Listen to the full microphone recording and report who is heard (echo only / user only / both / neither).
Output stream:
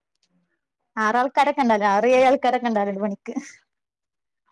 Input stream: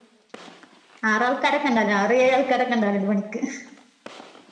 echo only